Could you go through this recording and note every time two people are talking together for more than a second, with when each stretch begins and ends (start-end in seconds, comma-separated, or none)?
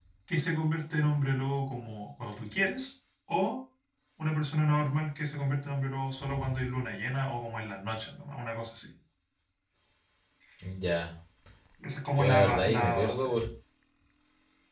12.1-13.3